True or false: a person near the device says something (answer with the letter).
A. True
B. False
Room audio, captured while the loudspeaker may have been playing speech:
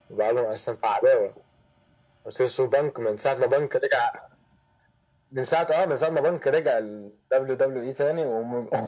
B